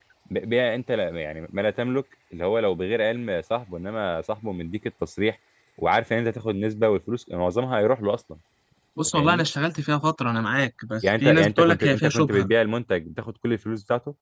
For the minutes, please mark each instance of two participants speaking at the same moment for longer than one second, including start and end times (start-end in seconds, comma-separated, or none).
11.0-12.5